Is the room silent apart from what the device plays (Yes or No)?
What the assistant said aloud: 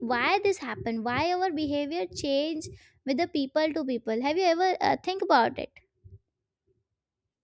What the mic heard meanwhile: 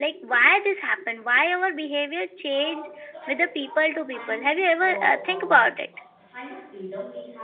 No